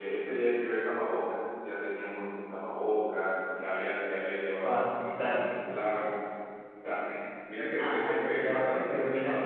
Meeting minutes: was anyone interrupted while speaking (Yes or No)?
Yes